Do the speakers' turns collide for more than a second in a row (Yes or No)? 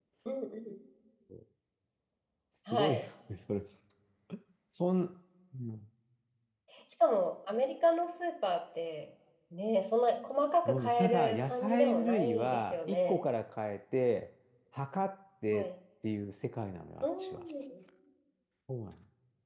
Yes